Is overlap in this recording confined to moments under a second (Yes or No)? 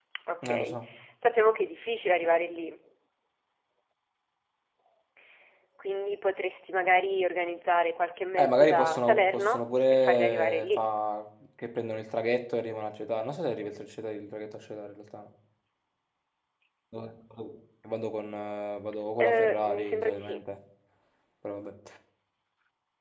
No